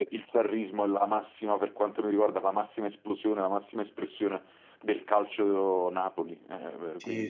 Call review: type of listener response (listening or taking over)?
taking over